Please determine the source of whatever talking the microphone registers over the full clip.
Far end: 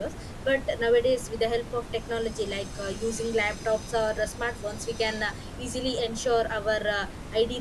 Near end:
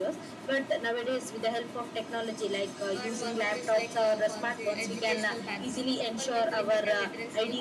both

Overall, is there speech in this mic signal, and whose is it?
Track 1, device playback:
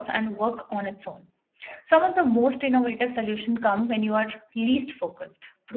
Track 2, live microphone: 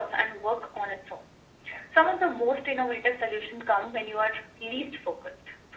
echo only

